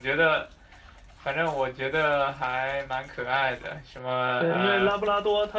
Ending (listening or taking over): taking over